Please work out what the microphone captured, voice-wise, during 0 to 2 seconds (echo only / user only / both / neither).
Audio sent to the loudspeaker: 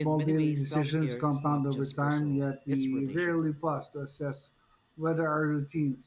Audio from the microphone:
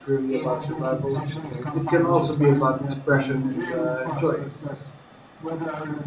both